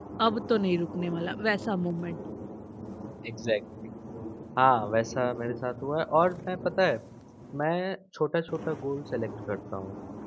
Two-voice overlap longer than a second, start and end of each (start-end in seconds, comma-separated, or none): none